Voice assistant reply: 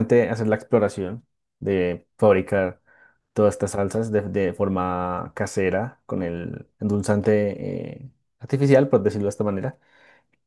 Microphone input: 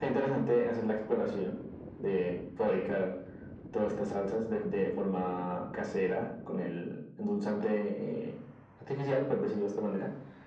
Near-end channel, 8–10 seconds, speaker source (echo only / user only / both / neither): echo only